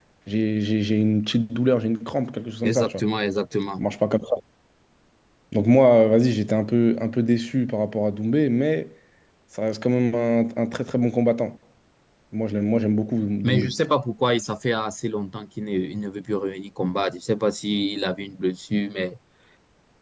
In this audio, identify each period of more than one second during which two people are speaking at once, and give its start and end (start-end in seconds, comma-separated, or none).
none